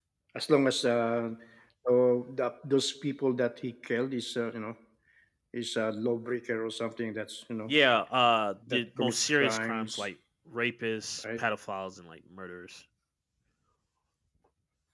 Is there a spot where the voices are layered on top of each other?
Yes, from 8.7 s

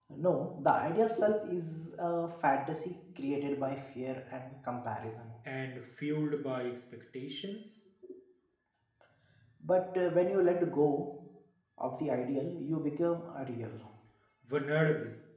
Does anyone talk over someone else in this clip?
No

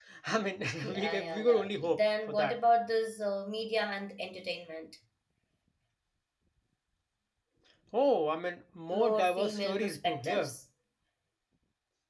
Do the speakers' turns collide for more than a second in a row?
Yes, from 0.8 s

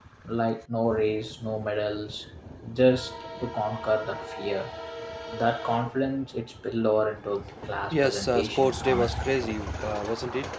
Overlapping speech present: Yes, from 7.9 s

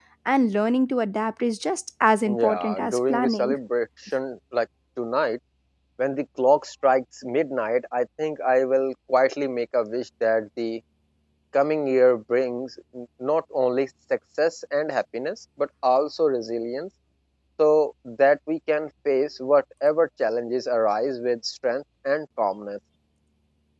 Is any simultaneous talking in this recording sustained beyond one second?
Yes, from 2.2 s

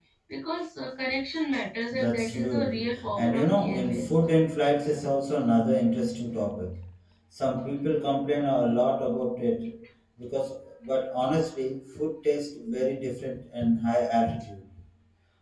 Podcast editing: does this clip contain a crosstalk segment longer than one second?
Yes, from 1.9 s

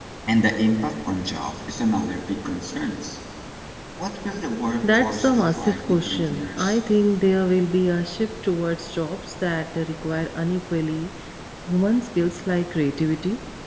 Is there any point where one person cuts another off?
Yes, from 4.8 s

